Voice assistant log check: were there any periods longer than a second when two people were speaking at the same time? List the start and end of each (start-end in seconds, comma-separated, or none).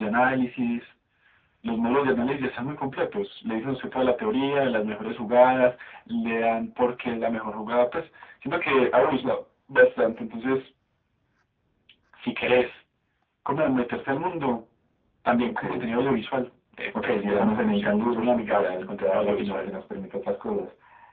16.9-19.6